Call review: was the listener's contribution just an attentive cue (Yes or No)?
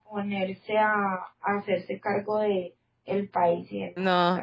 No